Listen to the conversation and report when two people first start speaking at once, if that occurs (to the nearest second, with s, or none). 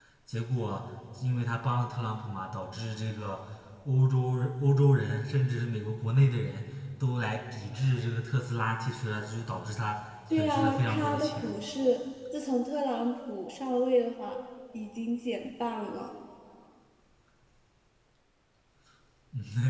10 s